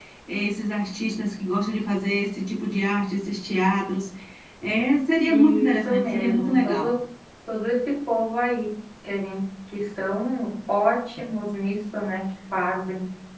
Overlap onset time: 5.3 s

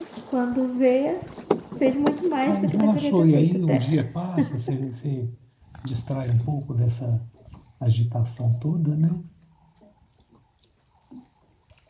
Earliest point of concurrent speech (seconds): 2.5 s

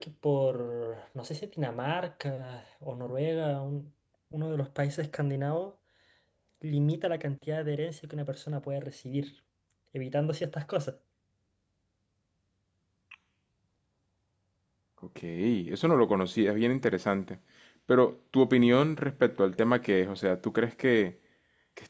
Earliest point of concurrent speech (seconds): none

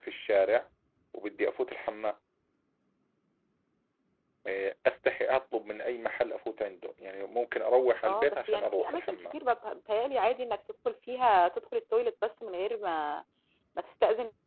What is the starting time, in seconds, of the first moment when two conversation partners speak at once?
8.0 s

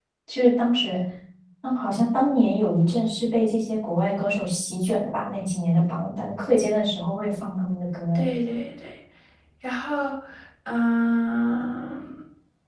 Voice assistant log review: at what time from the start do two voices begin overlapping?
none

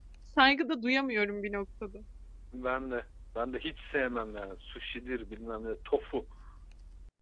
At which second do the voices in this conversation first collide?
none

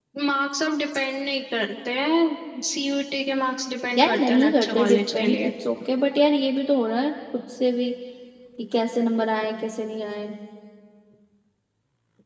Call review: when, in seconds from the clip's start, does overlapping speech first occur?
4.0 s

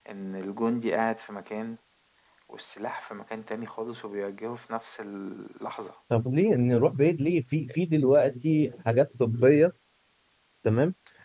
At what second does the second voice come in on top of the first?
none

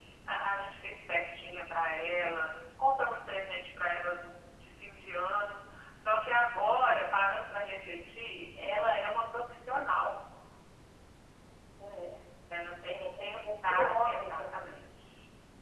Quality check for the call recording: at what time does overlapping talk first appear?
12.8 s

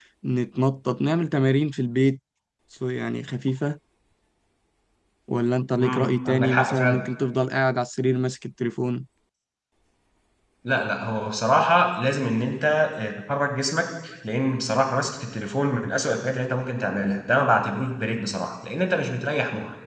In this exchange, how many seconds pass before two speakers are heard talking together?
5.8 s

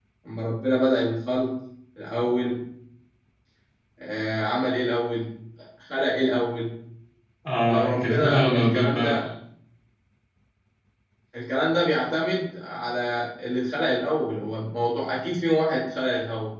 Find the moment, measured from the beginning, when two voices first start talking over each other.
7.7 s

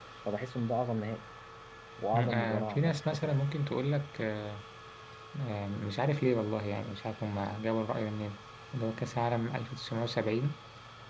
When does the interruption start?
2.2 s

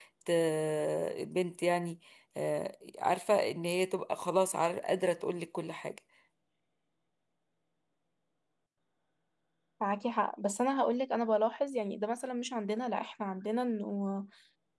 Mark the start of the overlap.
none

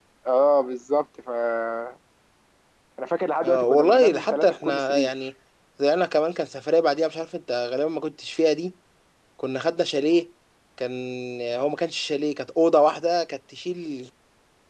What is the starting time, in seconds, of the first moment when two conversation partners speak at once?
3.4 s

